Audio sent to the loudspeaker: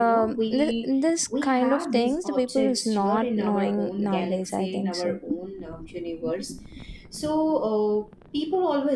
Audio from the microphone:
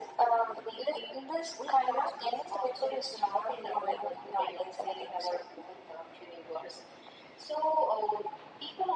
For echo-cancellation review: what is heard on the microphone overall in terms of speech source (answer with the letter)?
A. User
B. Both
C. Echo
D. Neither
C